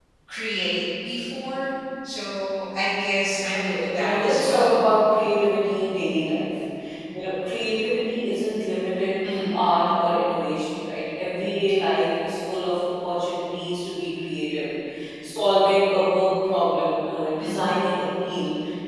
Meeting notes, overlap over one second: present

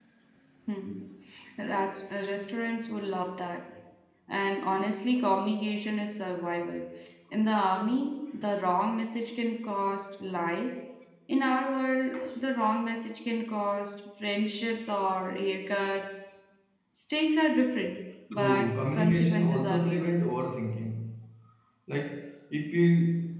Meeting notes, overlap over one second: present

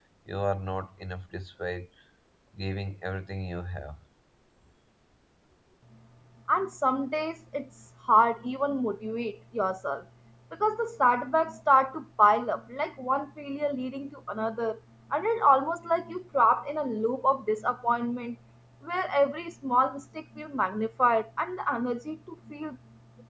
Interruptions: none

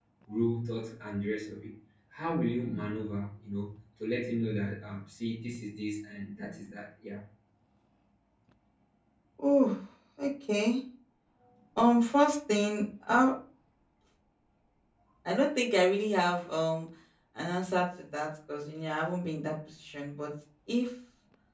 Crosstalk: none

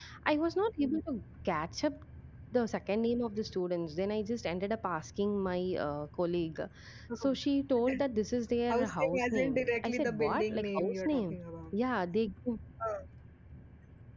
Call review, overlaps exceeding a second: present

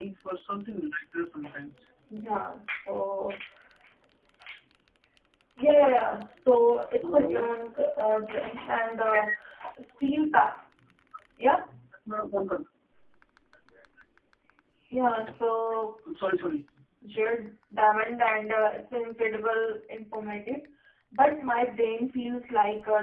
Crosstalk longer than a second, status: none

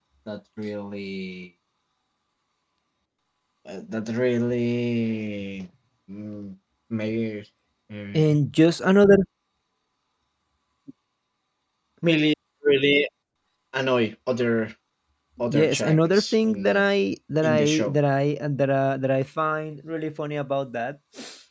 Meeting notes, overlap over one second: present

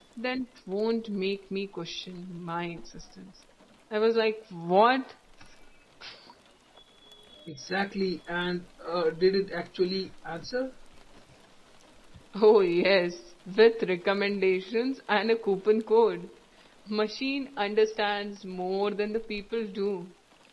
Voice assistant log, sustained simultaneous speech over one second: none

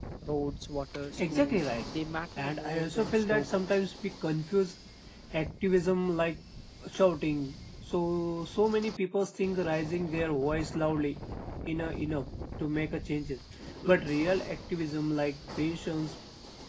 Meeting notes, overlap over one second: present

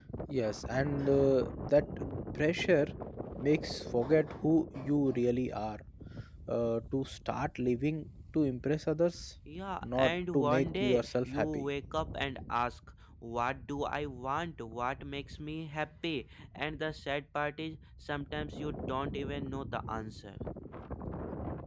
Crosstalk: present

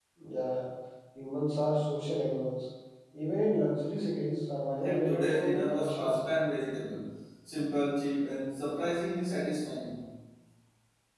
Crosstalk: present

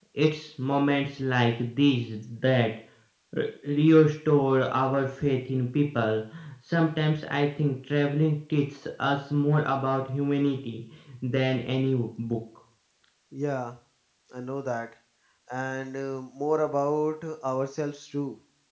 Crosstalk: none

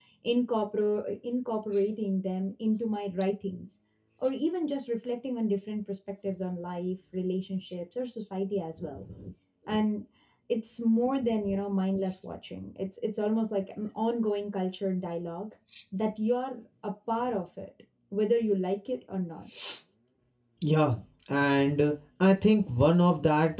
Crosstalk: none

